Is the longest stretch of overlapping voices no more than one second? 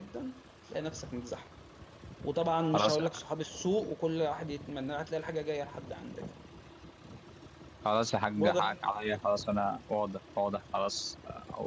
Yes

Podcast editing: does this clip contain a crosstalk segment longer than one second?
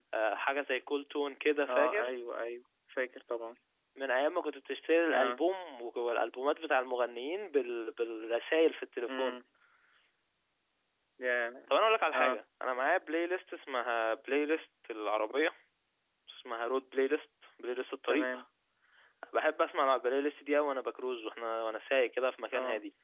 No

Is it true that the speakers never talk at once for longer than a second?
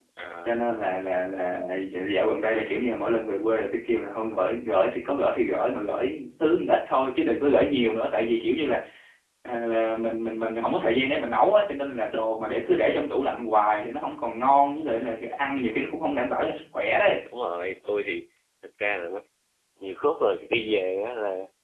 Yes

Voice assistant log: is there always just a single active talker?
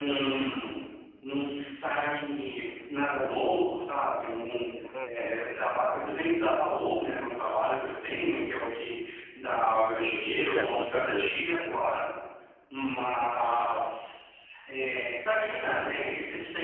No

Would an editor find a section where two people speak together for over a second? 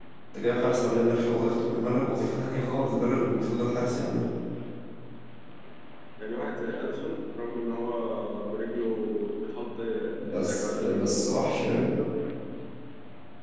Yes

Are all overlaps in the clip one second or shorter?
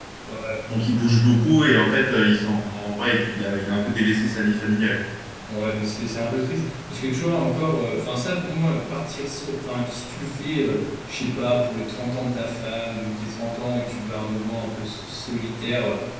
Yes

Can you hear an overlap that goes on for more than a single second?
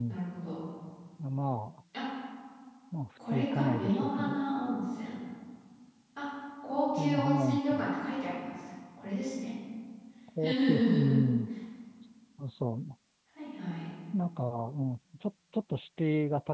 Yes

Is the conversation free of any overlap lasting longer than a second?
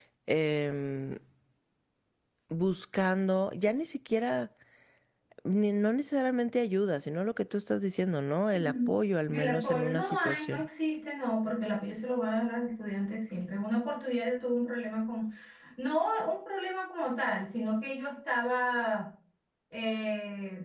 No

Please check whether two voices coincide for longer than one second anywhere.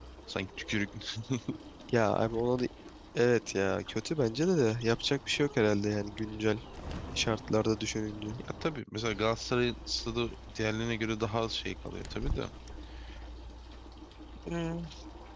No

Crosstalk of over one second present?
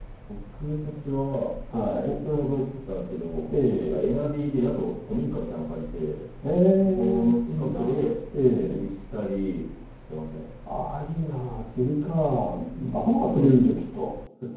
Yes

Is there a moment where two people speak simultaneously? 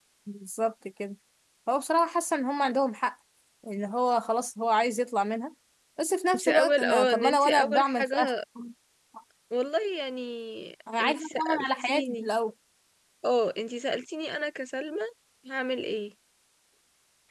Yes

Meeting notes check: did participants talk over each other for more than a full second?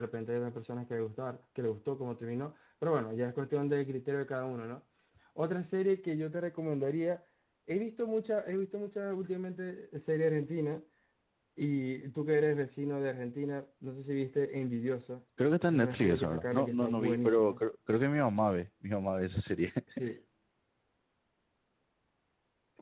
Yes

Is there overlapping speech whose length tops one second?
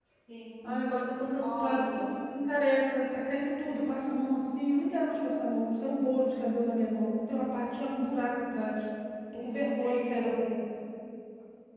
Yes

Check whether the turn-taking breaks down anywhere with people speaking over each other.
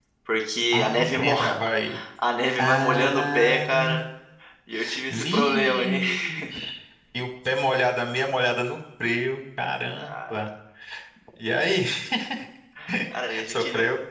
Yes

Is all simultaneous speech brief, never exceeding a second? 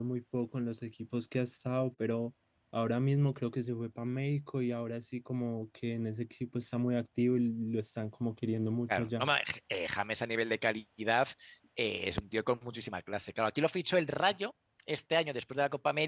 Yes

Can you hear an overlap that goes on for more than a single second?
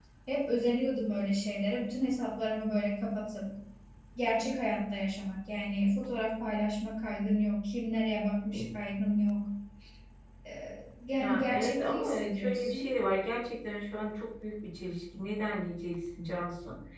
Yes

